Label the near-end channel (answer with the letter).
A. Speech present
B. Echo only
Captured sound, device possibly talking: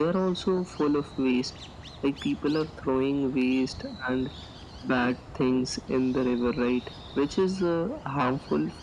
B